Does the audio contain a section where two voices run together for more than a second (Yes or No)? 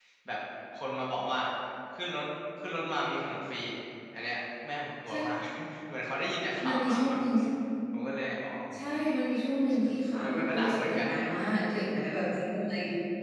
Yes